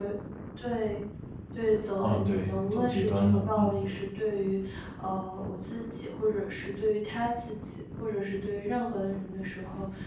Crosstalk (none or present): present